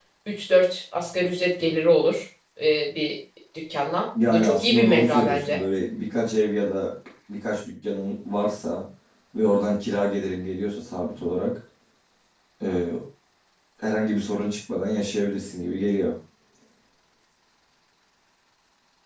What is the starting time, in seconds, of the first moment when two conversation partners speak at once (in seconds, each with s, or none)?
4.2 s